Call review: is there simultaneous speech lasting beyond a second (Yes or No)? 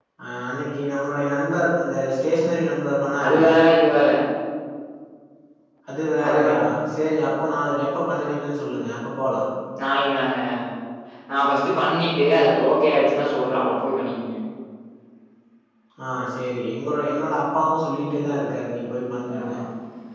No